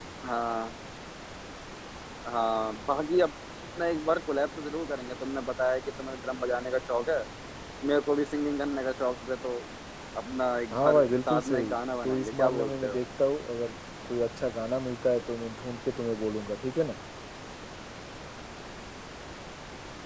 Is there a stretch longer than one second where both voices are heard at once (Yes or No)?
Yes